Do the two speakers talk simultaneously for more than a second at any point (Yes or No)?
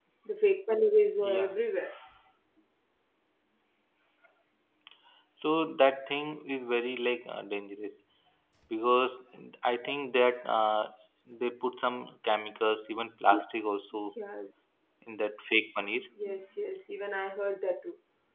No